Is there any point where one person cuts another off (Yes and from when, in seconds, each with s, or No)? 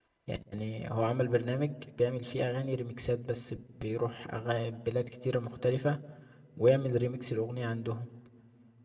No